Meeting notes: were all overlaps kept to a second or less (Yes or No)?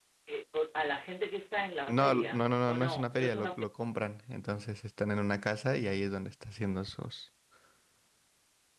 No